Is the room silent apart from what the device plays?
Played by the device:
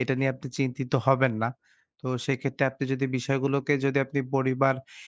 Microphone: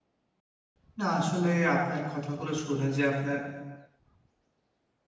No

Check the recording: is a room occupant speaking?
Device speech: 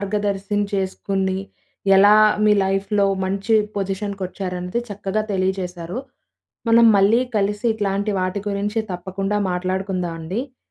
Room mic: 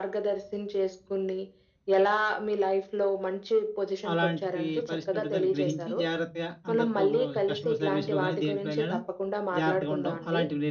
Yes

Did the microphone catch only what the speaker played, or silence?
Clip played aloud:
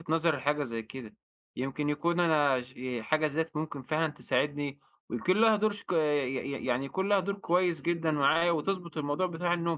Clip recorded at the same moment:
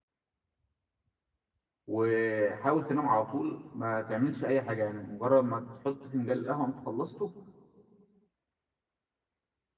No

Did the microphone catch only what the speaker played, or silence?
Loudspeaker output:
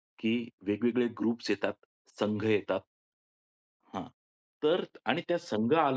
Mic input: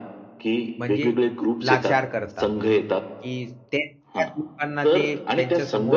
No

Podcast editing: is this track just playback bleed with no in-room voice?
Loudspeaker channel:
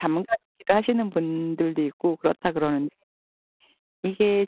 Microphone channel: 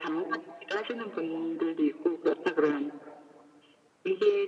Yes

